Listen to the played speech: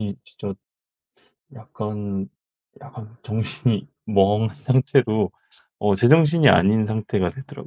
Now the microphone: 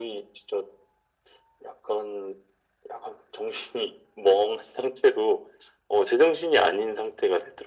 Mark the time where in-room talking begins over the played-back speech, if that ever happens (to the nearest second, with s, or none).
none